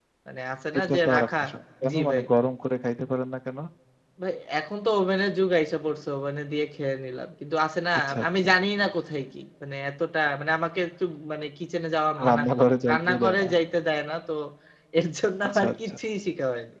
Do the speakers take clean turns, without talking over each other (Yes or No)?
No